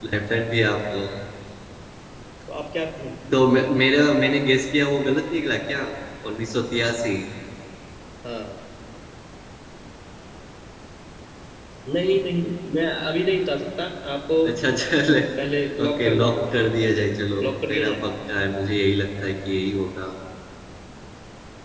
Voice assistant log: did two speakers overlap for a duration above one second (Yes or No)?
Yes